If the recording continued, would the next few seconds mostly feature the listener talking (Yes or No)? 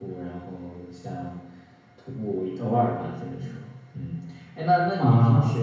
No